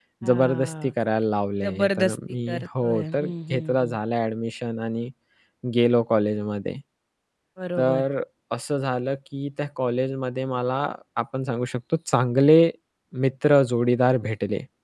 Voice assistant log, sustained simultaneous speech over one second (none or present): present